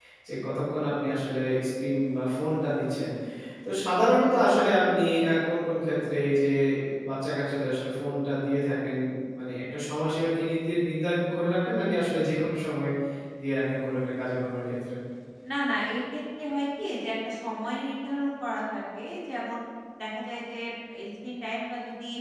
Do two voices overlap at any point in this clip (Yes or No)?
No